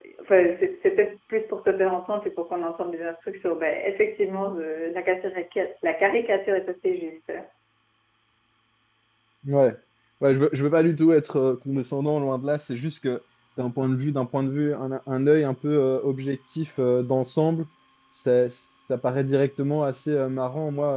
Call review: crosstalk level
none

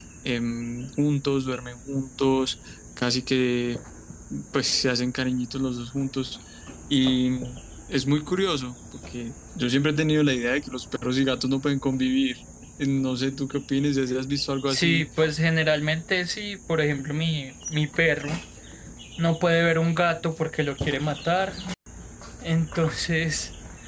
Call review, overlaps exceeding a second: none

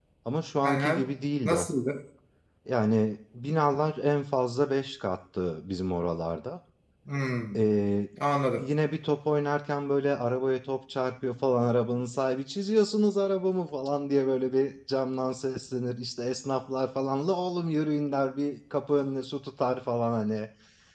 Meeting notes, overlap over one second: none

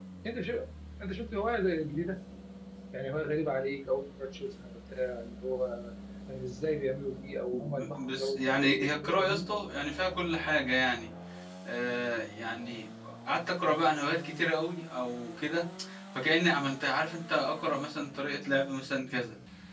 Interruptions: present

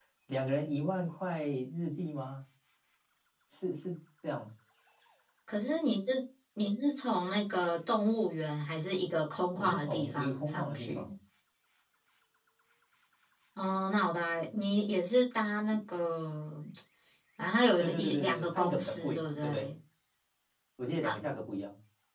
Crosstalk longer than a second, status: present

